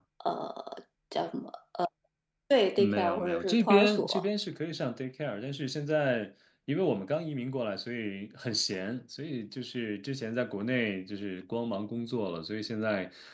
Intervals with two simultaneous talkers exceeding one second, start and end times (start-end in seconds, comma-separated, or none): 2.8-4.2